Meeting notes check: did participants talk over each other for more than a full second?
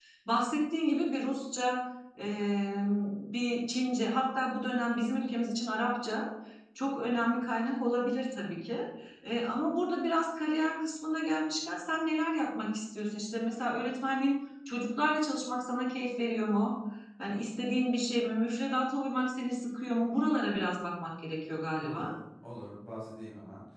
No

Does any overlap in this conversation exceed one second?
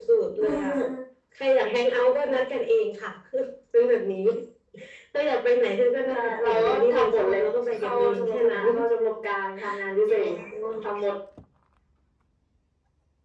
Yes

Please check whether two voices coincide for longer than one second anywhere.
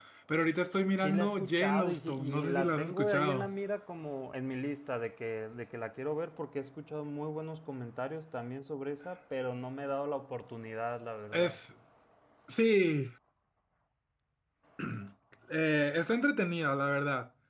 Yes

